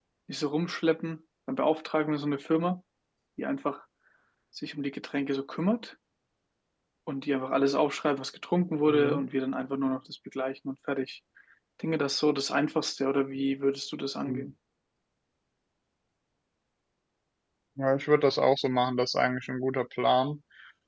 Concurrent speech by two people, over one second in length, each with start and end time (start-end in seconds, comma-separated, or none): none